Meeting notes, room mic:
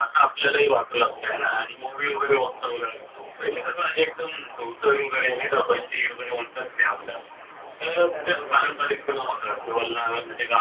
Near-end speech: present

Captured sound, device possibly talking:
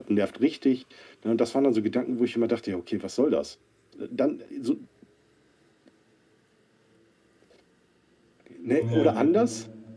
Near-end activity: present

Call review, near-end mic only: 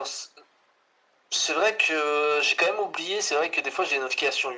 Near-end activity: none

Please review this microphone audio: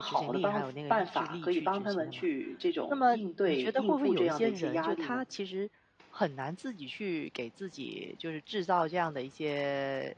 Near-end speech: present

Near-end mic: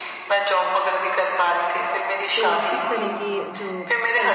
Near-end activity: present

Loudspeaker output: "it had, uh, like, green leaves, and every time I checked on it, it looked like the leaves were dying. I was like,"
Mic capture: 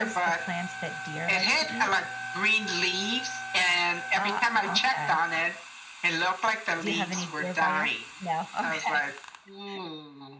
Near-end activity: present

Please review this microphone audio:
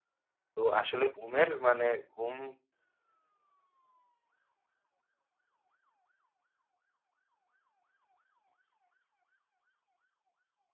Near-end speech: present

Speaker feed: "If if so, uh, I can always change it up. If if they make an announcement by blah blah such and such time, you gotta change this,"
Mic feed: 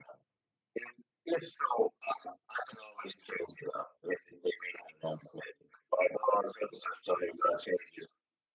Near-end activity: none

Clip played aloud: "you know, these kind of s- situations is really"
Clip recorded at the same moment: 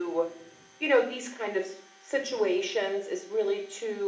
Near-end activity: none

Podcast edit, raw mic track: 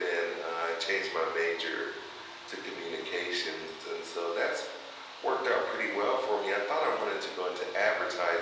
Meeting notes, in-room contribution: none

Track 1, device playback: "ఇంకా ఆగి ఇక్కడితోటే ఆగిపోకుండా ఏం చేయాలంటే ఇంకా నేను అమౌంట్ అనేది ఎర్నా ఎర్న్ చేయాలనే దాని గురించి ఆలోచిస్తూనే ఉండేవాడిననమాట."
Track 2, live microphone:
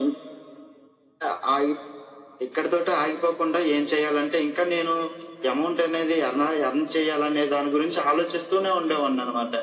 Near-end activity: none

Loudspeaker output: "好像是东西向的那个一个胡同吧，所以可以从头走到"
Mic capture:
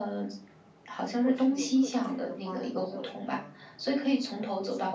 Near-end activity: present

